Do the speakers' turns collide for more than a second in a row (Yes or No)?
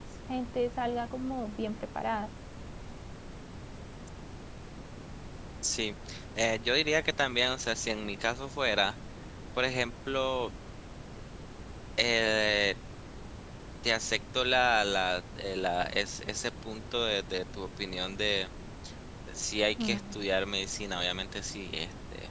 No